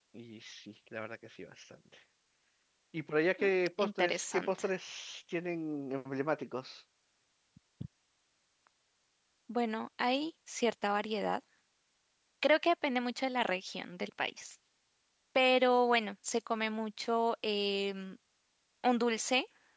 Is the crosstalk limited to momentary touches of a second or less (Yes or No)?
No